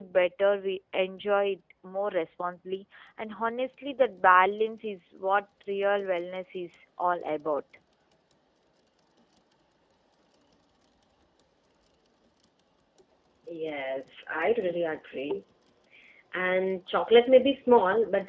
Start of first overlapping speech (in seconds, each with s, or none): none